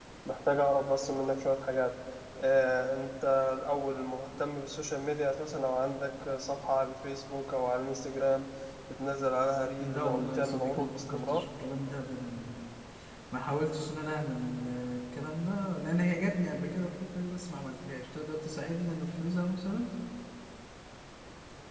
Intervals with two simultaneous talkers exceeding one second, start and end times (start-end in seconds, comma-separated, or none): 9.8-11.4